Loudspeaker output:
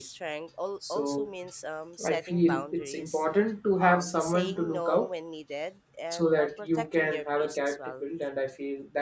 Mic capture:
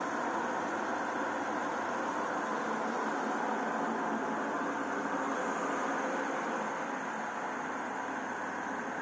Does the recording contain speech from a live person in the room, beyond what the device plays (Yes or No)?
No